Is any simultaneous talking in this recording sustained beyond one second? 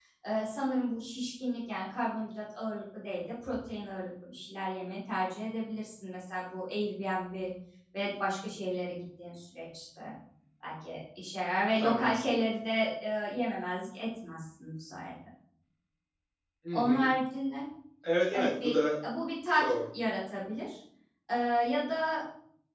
No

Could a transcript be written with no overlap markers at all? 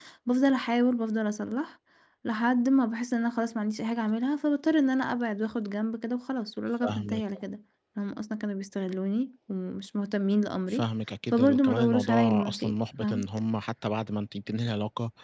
No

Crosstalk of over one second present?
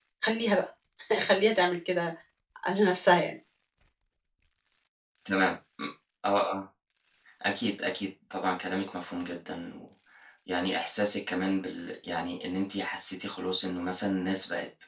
No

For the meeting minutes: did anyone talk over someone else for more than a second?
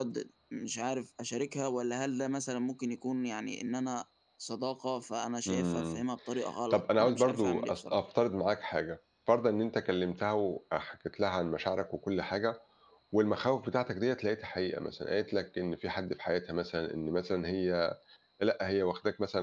Yes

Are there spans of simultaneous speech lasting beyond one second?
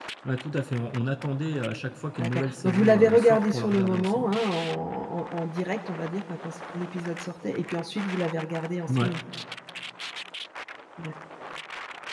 Yes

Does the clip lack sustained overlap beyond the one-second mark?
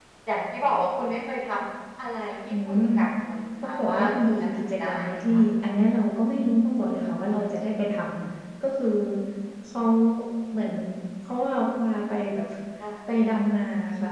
No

